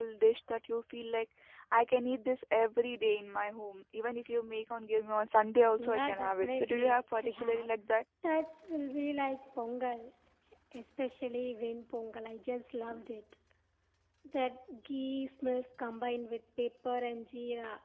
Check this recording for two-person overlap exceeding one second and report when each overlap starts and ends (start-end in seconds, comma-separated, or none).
5.8-7.7